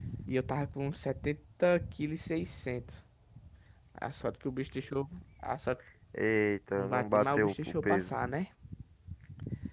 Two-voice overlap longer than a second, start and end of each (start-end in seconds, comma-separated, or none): 6.8-8.2